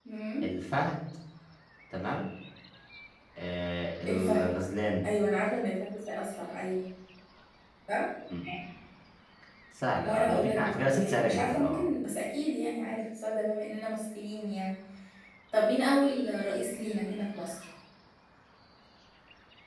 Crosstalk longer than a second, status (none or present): present